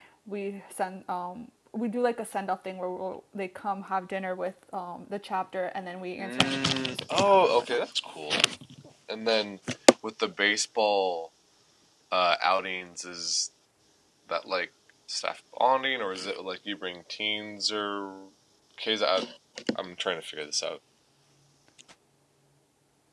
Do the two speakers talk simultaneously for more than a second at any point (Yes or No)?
Yes